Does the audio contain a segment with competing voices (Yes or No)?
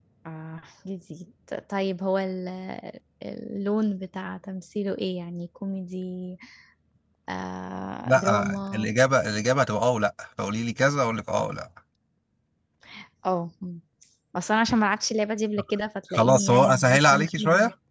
Yes